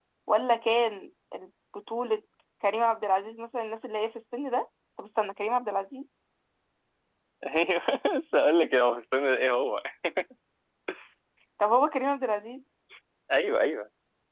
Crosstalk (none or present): none